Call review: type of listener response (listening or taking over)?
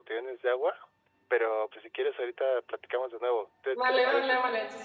taking over